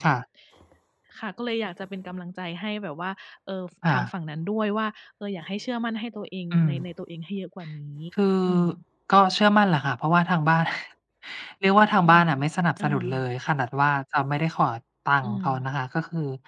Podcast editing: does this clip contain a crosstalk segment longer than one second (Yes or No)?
No